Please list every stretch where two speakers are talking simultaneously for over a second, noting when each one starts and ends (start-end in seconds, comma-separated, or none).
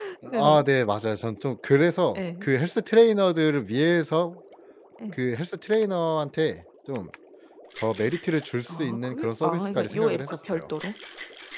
8.7-10.6